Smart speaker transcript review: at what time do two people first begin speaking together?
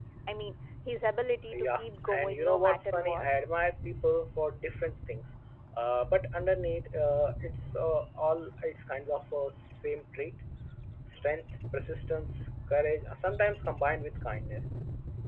1.5 s

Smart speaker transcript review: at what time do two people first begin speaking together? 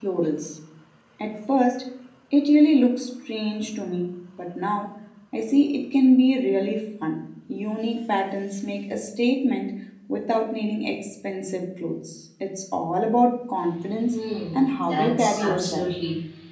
14.6 s

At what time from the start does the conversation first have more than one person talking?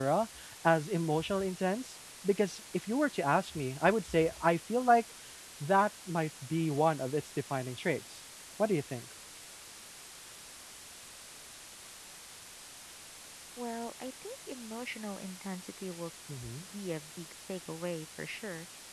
none

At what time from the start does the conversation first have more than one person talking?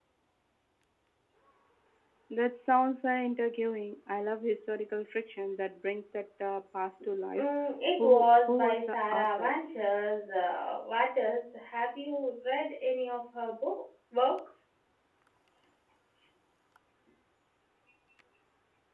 8.0 s

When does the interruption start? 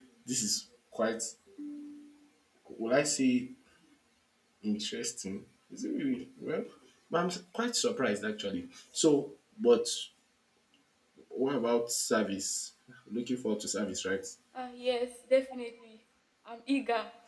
none

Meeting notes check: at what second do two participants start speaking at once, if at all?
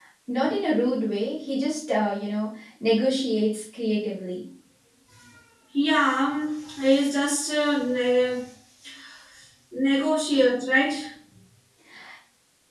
none

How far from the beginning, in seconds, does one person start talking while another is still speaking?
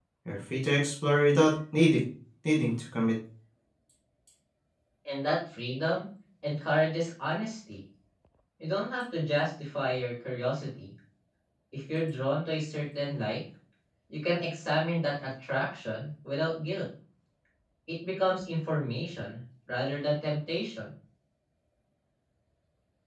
none

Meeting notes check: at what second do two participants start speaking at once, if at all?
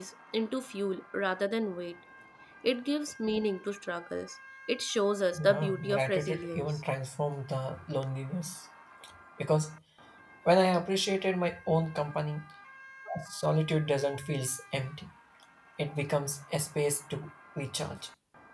5.3 s

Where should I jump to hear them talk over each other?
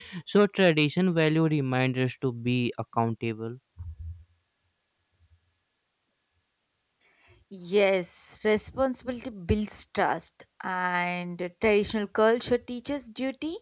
none

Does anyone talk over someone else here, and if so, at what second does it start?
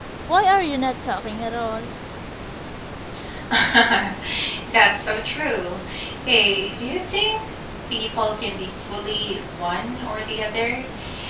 none

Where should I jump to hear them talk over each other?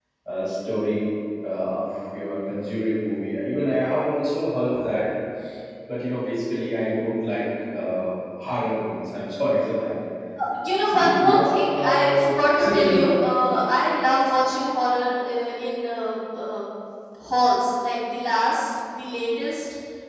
10.9 s

